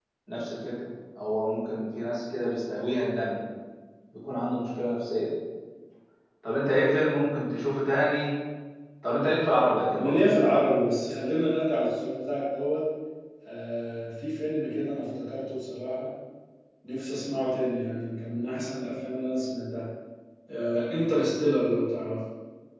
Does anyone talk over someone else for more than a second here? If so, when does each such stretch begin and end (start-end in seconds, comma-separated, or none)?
none